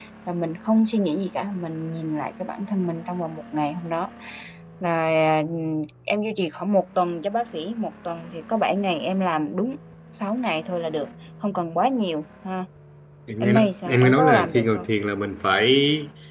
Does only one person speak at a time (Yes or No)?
No